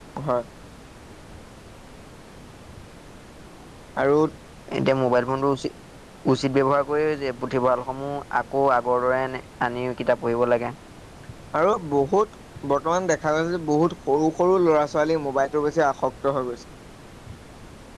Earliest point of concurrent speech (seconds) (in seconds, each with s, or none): none